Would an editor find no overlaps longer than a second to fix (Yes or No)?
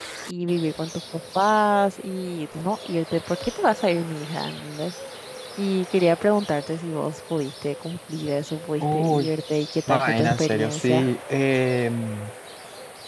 No